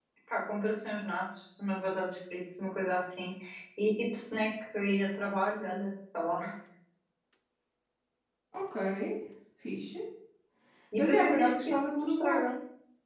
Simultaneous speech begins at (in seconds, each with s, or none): 11.0 s